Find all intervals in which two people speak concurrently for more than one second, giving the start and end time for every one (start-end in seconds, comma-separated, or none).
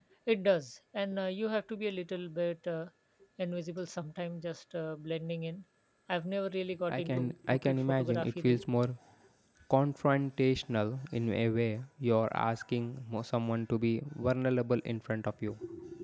6.9-8.6